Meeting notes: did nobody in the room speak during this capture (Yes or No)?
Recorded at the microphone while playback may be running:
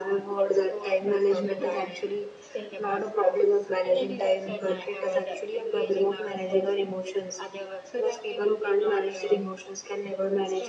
Yes